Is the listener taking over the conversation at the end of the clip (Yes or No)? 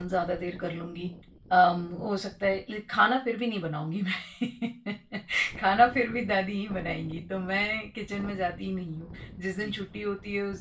No